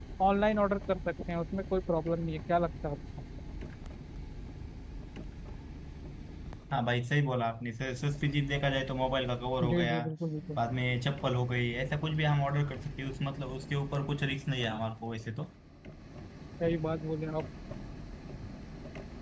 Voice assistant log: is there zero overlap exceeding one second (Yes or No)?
Yes